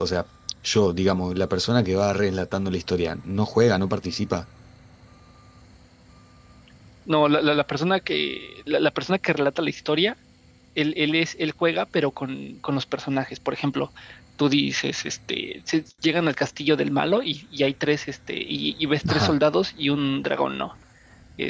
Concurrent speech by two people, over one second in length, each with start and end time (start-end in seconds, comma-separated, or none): none